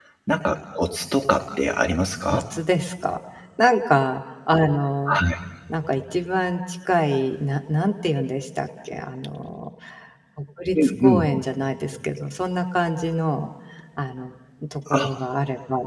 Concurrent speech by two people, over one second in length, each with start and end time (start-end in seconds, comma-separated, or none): none